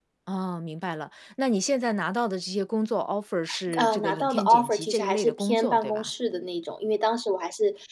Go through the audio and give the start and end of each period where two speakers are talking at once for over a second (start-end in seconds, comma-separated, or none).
3.8-6.1